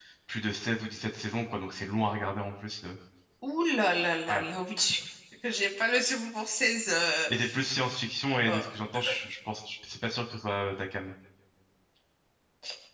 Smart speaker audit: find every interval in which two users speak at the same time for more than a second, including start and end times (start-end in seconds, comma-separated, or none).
none